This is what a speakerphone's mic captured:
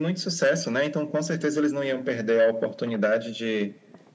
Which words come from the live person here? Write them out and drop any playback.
none

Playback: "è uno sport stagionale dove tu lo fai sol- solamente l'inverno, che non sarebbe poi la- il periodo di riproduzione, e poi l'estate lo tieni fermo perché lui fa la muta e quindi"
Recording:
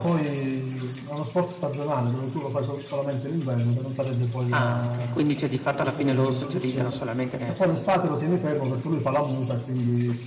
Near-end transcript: Ah, okay. Quindi, cioè, di fatto alla fine loro socializzano solamente ne

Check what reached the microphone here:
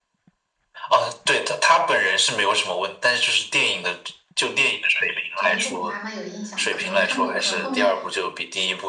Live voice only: 《拯救 Hope 妈妈》有印象，可能看过，可能后面

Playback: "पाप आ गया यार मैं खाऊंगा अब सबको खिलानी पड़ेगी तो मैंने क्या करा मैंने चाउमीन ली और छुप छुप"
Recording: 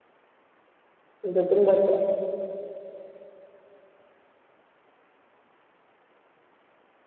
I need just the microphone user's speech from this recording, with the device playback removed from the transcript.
जो तुम बता

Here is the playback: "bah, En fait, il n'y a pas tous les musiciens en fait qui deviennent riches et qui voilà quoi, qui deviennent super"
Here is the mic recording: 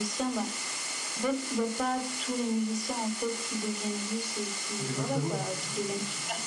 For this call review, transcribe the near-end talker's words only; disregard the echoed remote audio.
Exactement.

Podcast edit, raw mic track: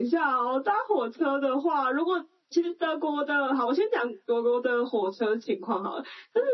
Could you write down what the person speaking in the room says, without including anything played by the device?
none

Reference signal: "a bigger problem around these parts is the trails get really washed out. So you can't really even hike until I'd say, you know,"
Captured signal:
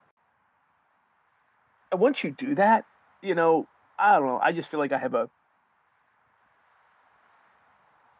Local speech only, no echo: And once you do that, you know, I don't know, I just feel like I have a

